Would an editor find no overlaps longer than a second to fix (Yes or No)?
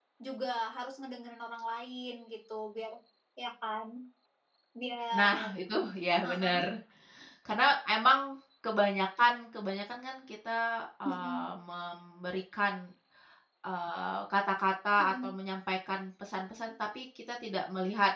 Yes